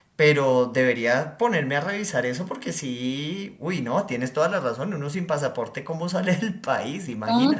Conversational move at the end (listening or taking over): taking over